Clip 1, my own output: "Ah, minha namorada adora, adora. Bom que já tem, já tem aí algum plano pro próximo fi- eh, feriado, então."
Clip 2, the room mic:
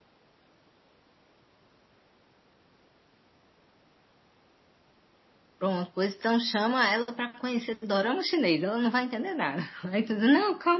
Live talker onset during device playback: 5.6 s

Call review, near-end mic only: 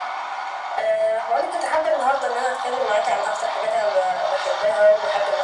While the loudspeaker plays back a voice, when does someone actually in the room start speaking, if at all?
none

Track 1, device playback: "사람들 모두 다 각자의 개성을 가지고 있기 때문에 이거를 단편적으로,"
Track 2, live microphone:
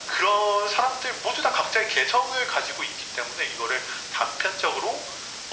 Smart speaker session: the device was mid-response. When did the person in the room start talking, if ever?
none

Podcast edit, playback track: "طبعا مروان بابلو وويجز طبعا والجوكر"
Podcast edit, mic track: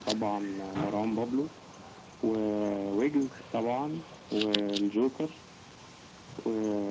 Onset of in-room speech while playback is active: none

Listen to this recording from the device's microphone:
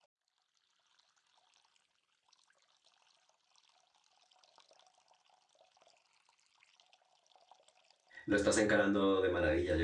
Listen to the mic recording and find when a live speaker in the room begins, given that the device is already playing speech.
8.2 s

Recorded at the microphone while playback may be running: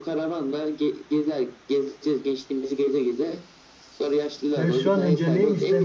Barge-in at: 4.5 s

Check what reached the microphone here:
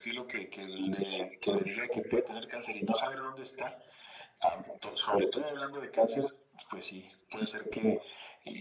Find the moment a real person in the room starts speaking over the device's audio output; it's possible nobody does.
none

